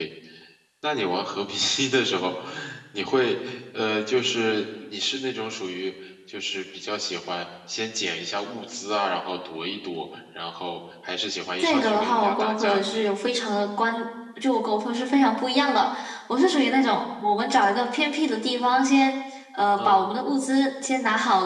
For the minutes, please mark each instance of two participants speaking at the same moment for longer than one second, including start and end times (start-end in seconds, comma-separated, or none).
11.6-13.1